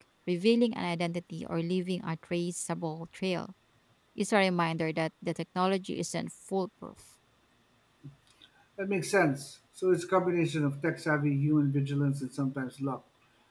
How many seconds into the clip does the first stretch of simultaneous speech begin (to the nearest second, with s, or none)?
none